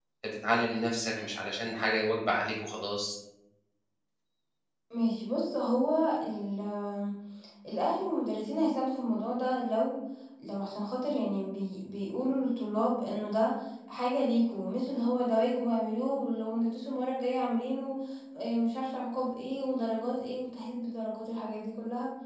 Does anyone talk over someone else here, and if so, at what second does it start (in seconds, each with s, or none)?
none